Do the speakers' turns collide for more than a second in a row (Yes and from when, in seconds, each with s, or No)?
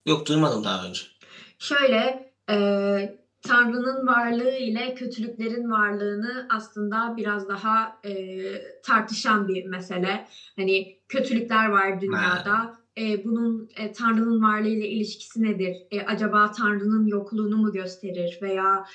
No